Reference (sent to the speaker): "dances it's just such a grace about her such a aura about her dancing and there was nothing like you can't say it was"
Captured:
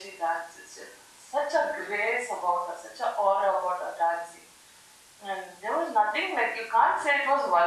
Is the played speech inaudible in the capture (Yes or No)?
No